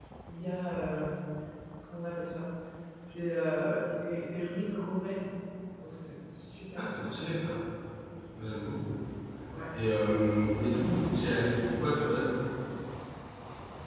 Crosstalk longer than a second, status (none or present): none